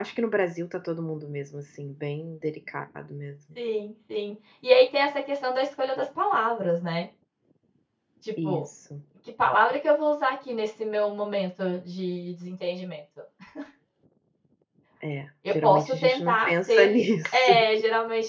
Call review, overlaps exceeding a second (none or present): present